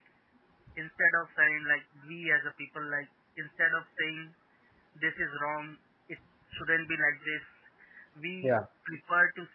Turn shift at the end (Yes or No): No